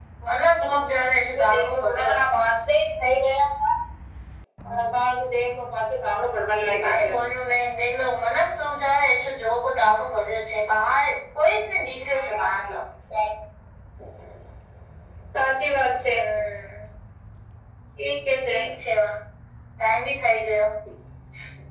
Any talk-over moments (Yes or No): Yes